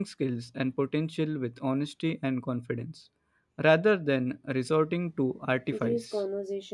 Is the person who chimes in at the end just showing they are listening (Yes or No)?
No